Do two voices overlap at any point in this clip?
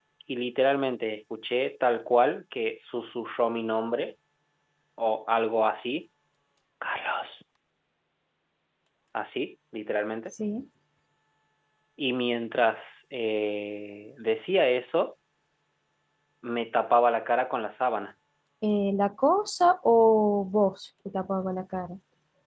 No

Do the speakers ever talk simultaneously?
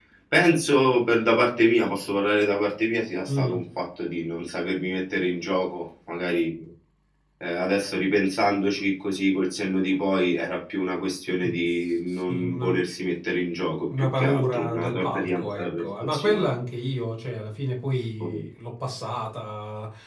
Yes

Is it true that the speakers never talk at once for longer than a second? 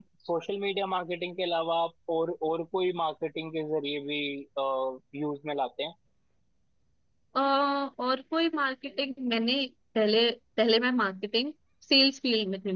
Yes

